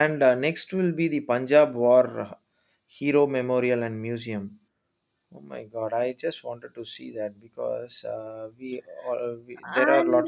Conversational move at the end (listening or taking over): taking over